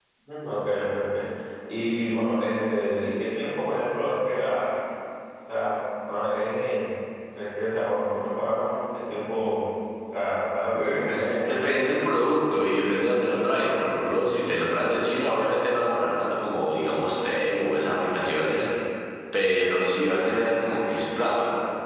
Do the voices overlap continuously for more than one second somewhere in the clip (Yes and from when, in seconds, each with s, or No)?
Yes, from 10.7 s